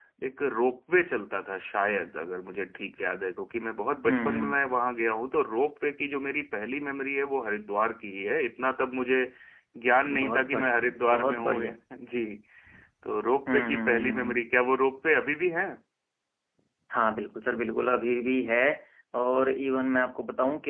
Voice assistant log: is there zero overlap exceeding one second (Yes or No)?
No